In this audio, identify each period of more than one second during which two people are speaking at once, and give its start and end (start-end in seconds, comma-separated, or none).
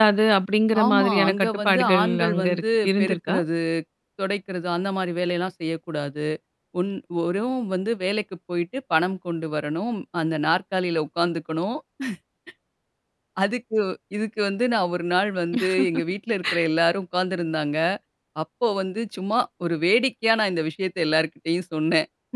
0.8-3.4